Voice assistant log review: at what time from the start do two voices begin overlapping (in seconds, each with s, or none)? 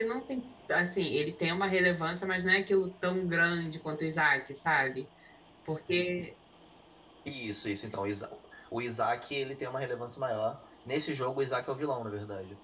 none